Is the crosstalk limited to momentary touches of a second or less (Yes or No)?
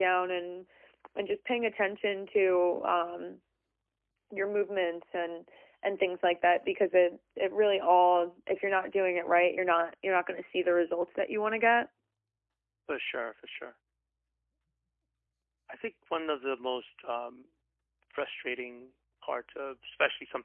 Yes